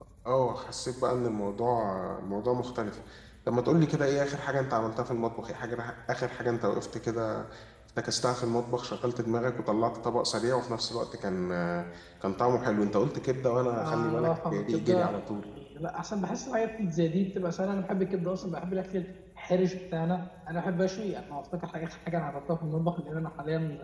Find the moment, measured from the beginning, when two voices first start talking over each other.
13.8 s

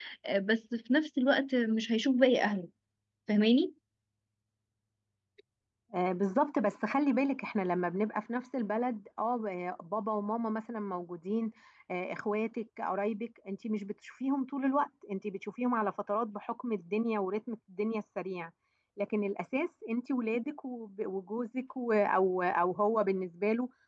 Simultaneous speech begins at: none

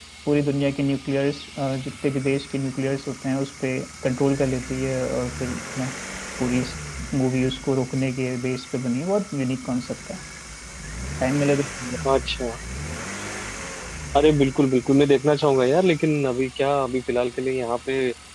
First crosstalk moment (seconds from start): none

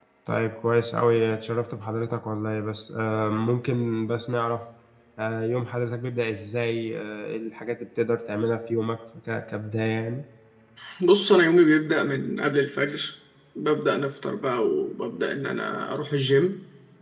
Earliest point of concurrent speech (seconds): none

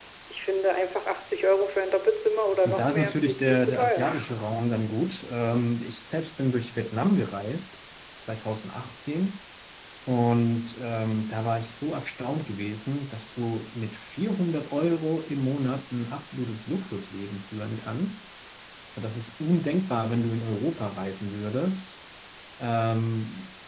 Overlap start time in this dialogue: 2.6 s

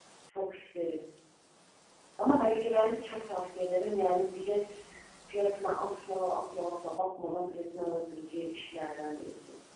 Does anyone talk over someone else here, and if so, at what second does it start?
none

